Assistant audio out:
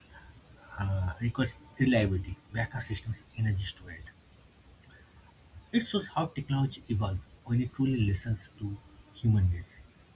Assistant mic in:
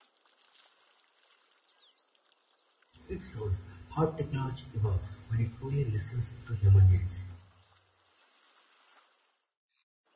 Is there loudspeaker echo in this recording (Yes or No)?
No